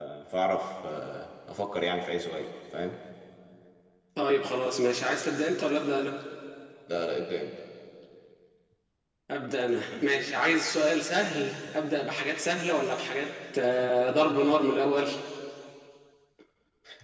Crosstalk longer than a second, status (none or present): none